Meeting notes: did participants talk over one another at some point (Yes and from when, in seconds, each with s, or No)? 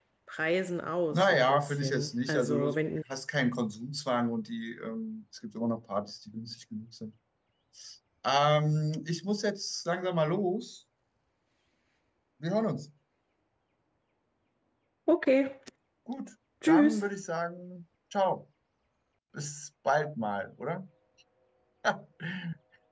Yes, from 1.1 s